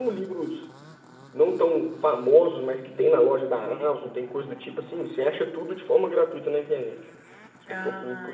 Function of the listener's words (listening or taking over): taking over